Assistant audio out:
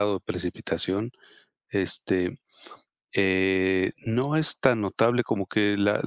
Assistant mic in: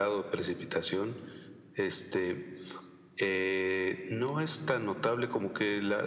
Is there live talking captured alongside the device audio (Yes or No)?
No